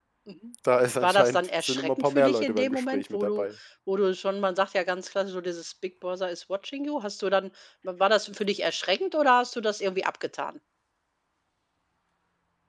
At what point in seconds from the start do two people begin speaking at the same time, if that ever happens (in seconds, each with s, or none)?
1.0 s